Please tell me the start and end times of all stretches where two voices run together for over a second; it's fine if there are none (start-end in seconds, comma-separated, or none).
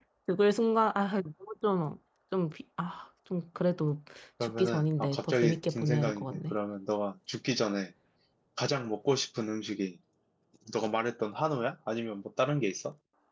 4.4-6.5